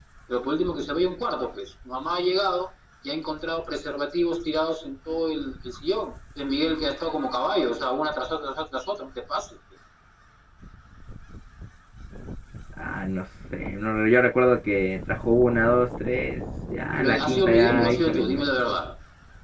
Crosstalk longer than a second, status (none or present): present